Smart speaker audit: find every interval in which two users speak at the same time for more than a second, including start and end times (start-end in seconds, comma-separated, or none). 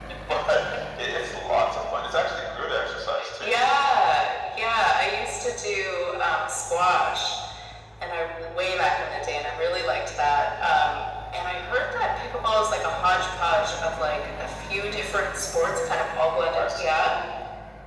none